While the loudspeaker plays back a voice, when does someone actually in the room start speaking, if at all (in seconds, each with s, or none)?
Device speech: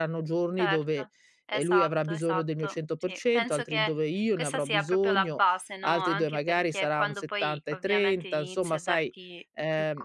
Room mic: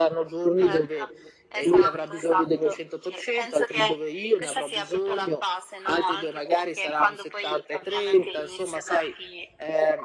none